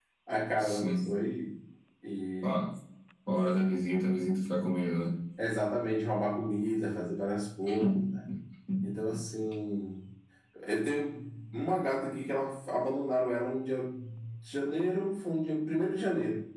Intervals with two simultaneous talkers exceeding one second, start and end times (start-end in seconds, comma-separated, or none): none